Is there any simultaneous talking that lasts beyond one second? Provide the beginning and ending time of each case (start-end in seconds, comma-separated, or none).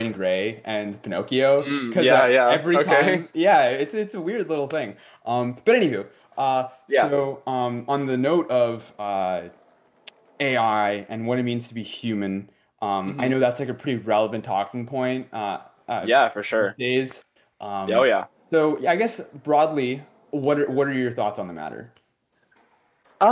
1.6-3.2